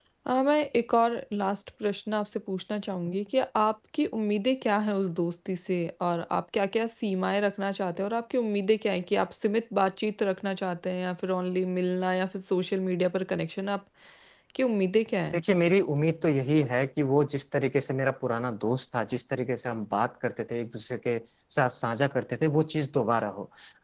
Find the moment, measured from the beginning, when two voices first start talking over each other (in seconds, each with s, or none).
none